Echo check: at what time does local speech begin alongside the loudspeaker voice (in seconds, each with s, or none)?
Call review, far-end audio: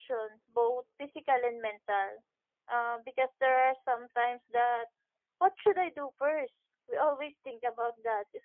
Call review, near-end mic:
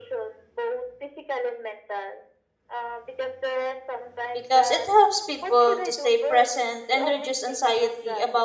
4.3 s